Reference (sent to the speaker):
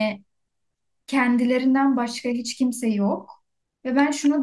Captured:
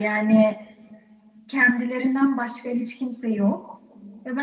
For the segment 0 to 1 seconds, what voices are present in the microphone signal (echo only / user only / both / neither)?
echo only